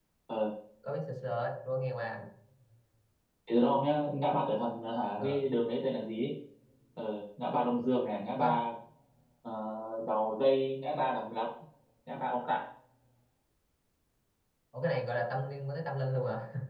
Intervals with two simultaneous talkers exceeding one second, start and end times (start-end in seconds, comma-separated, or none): none